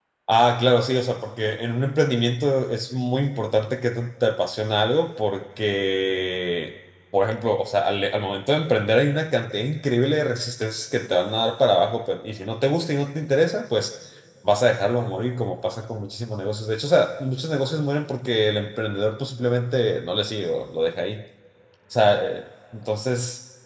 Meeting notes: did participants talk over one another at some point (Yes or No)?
No